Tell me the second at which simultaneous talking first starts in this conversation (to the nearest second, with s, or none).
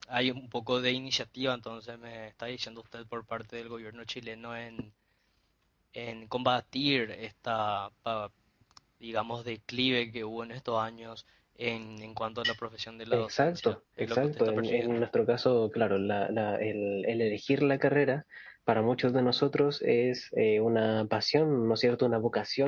13 s